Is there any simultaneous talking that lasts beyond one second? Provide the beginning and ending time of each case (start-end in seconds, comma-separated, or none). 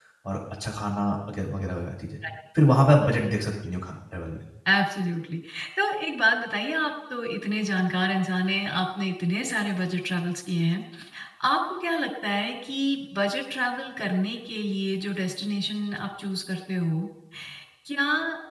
none